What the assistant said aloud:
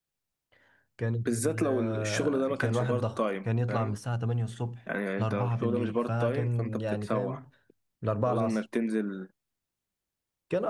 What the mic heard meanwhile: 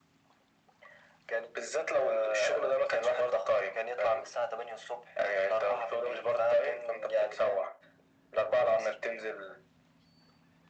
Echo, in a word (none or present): present